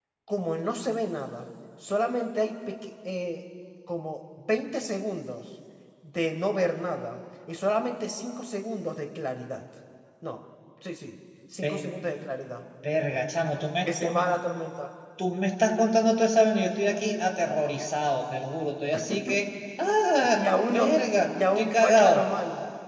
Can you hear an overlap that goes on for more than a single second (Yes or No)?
Yes